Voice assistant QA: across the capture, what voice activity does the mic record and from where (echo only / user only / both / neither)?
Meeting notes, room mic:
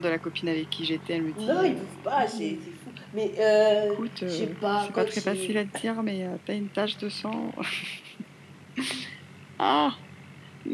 both